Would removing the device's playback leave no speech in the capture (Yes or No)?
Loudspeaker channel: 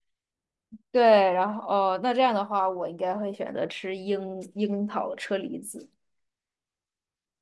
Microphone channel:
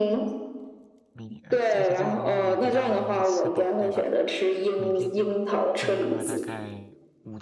No